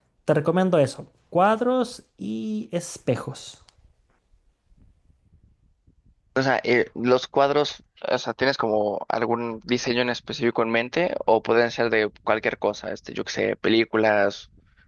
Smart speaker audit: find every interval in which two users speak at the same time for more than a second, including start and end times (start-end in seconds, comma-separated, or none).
none